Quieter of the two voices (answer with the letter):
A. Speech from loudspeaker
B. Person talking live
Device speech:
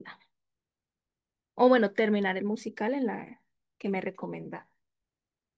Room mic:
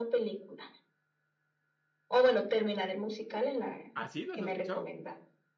B